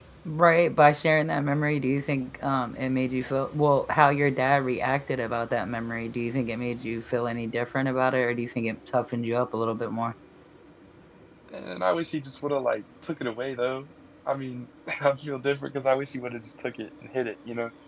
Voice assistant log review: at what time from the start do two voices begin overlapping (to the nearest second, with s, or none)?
none